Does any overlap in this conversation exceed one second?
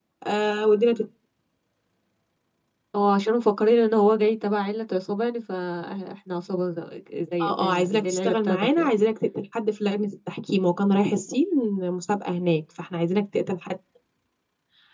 Yes, from 7.4 s

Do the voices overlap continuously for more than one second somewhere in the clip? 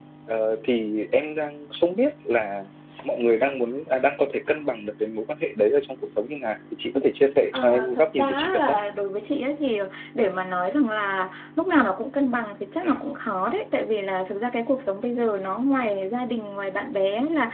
Yes, from 7.5 s

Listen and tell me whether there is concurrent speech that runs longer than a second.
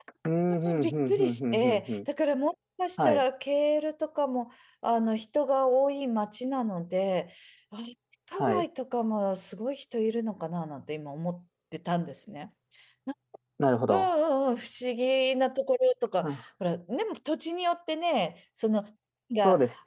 Yes, from 0.7 s

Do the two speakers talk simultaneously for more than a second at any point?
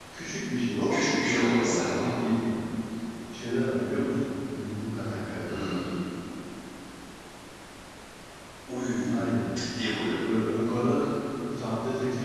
Yes, from 0.9 s

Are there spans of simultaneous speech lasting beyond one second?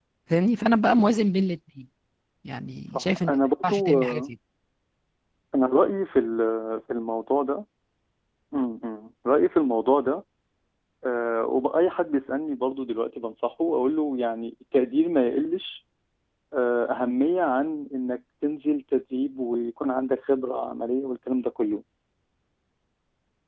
Yes, from 2.9 s

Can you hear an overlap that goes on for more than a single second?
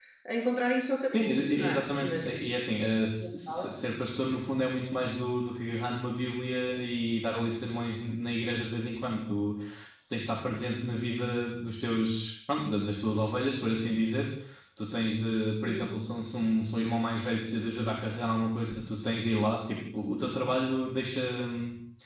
Yes, from 1.1 s

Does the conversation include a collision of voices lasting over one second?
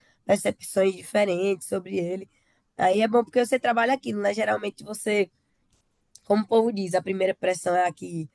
No

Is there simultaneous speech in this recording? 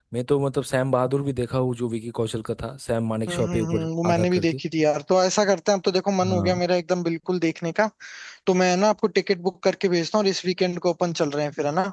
Yes, from 3.3 s

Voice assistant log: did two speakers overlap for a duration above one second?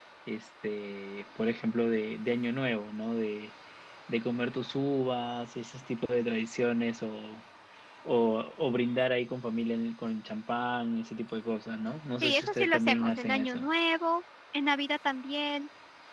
Yes, from 12.2 s

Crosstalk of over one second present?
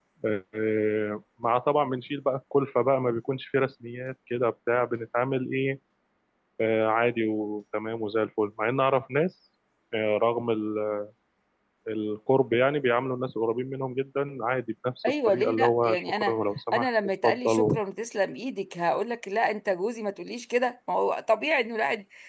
Yes, from 15.0 s

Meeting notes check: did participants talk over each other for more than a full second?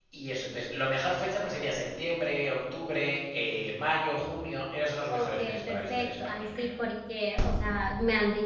Yes, from 5.1 s

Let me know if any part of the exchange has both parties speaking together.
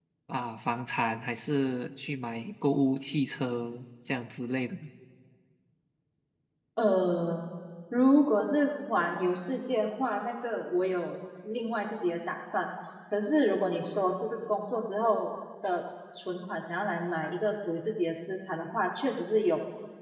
No

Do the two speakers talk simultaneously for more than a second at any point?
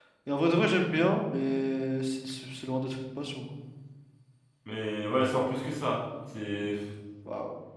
No

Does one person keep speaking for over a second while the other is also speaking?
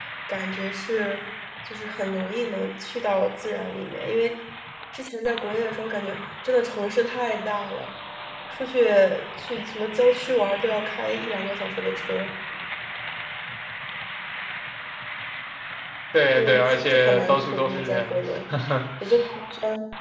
Yes, from 16.4 s

